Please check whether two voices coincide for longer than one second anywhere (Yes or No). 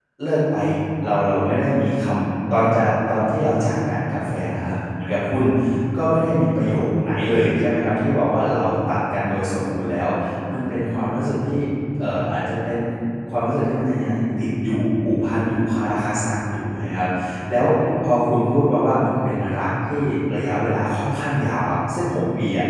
No